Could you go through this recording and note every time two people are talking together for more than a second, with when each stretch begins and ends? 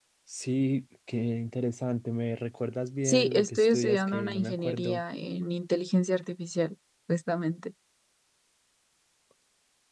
3.0-5.0

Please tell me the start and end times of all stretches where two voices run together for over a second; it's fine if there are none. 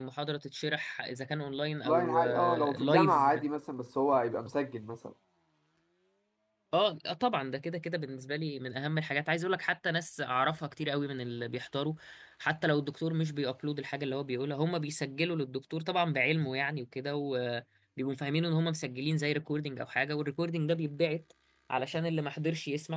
1.8-3.3

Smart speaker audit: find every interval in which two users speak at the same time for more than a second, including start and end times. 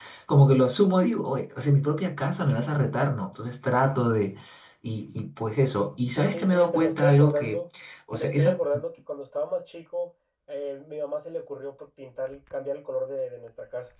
6.3-7.6

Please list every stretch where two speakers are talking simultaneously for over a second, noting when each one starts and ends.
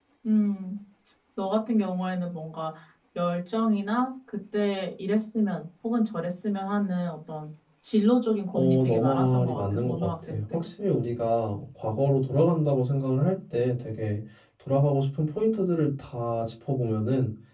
8.5-10.6

